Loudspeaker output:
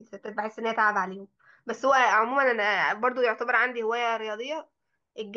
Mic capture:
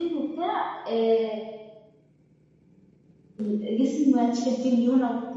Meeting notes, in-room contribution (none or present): present